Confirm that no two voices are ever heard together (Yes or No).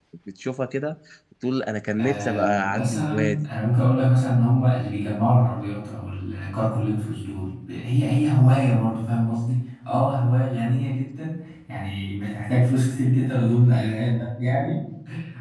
No